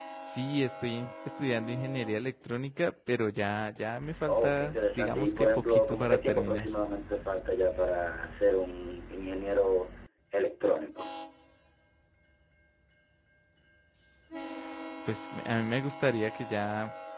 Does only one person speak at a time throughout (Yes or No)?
No